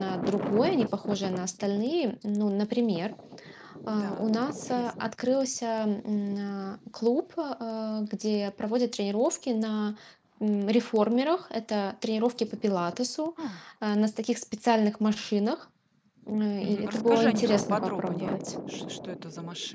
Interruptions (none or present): present